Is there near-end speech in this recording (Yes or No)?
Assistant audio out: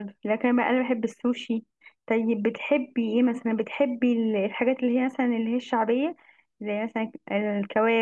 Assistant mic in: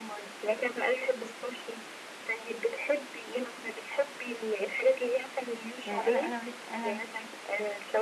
Yes